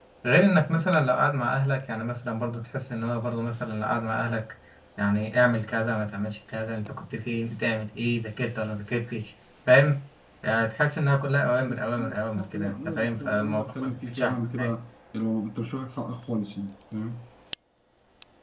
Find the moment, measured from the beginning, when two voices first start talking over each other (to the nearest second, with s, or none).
12 s